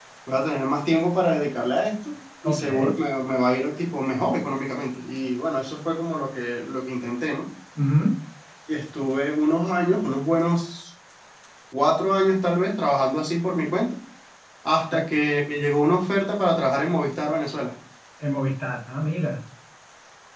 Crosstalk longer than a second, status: none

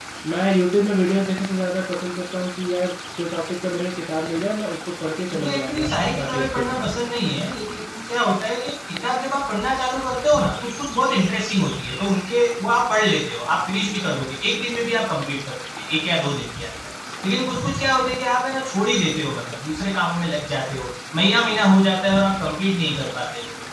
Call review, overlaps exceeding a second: present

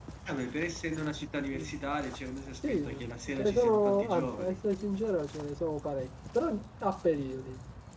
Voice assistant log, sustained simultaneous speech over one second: present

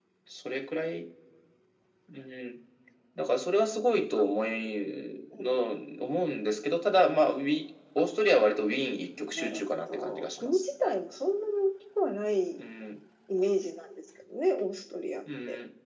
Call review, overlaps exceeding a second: present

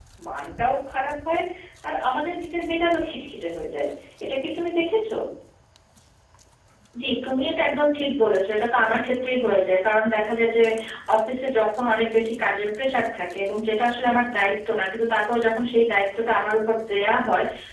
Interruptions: none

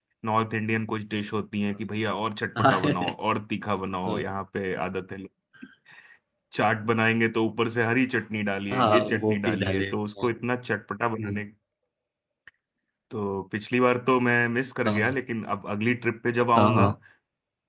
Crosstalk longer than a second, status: present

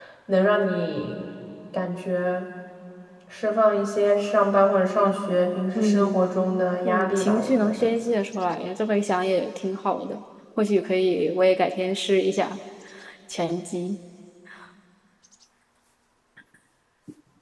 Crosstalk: present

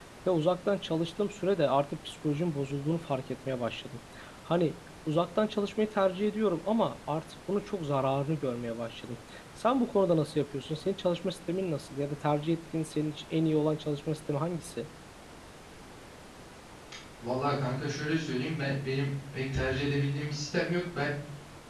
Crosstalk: none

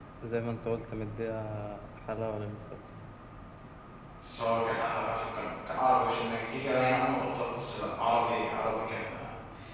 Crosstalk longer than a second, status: none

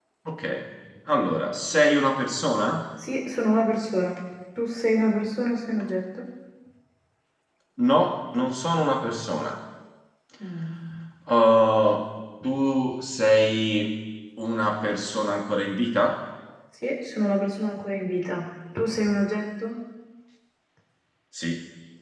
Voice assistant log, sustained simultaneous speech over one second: none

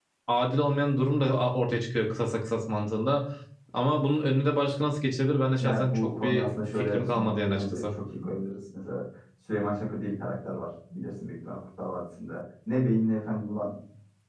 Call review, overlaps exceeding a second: present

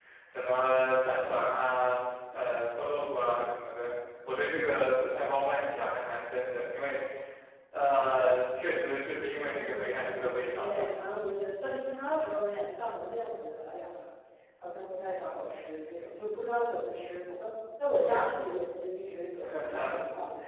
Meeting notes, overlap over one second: present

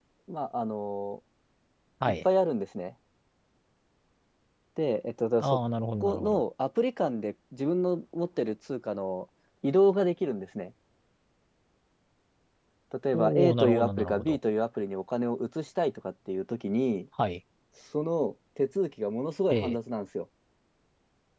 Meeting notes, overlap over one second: present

